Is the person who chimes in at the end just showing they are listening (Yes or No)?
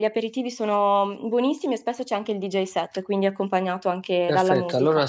No